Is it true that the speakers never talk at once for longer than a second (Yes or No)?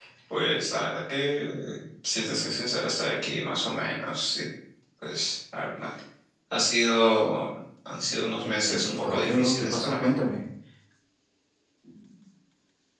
No